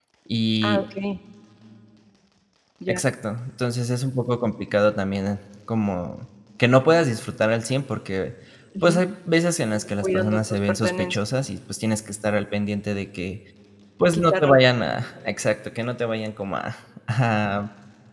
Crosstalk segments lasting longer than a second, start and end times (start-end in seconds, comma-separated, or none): 9.7-11.2